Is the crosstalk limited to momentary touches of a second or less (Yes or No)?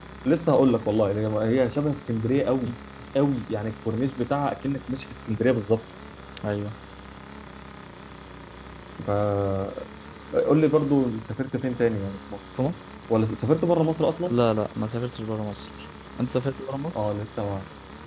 Yes